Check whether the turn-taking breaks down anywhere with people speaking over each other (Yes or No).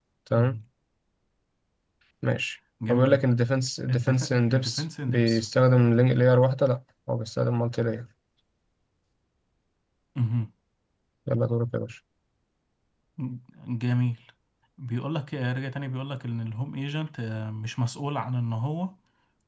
Yes